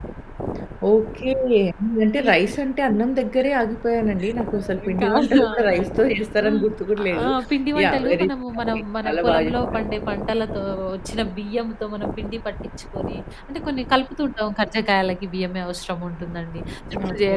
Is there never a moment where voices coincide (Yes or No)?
No